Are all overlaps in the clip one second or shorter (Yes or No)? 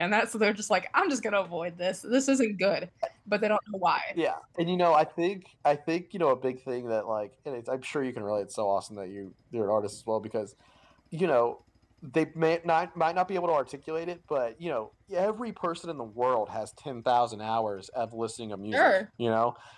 Yes